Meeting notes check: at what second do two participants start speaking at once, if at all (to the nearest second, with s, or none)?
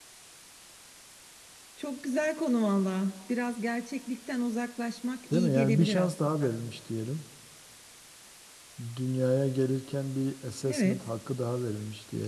5 s